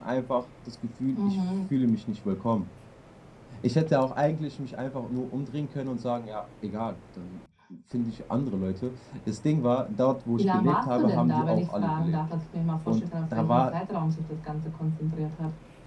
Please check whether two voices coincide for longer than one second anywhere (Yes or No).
Yes